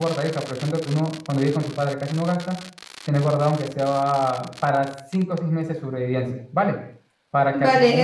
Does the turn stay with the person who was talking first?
No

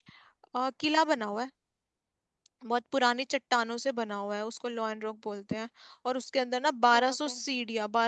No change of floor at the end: Yes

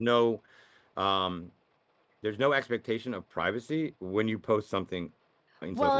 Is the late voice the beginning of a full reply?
Yes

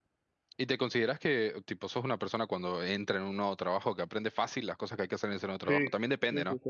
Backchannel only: No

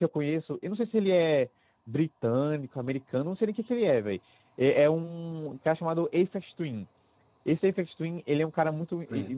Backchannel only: Yes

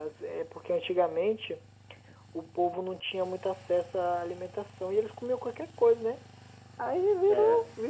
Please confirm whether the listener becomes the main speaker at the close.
No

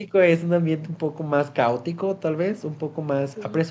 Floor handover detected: No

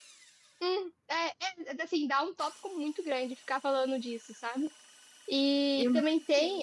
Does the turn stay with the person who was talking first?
Yes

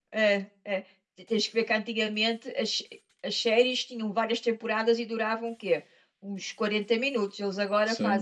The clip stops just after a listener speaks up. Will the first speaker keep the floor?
No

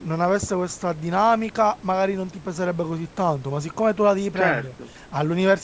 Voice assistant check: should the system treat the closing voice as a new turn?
No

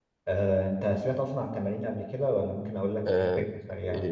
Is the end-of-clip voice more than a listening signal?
Yes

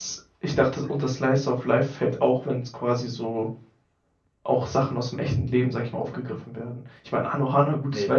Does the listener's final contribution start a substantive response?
No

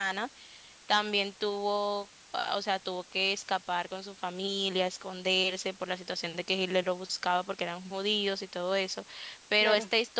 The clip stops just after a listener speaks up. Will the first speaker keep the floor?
Yes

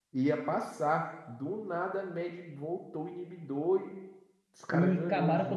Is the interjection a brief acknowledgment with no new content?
No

